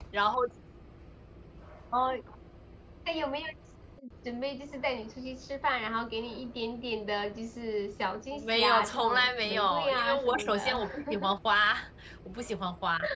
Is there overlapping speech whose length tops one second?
Yes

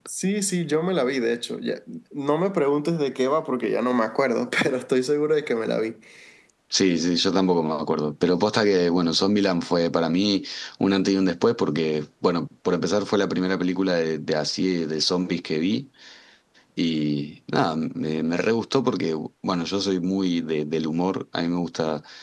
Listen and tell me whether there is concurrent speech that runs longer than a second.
No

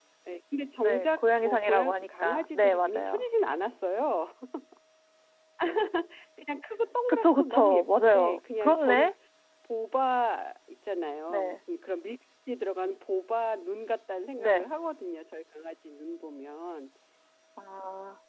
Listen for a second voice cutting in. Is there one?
Yes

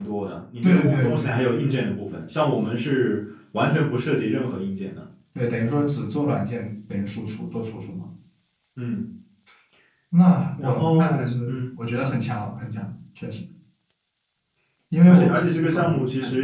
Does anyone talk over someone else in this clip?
Yes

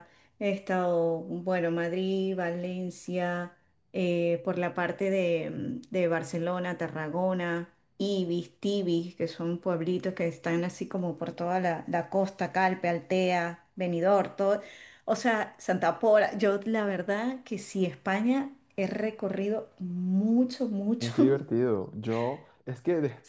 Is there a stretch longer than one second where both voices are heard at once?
No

